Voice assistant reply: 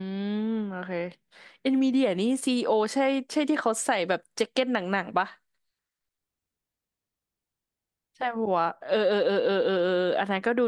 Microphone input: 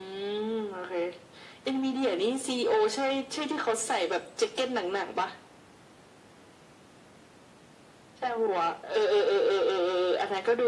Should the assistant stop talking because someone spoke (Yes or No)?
No